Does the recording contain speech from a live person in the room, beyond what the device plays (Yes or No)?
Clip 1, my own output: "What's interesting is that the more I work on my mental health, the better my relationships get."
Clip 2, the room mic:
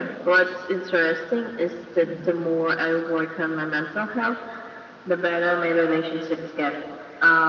No